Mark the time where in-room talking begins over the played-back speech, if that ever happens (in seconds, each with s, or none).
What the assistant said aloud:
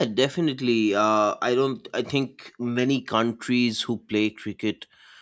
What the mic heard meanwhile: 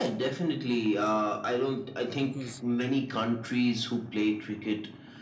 2.2 s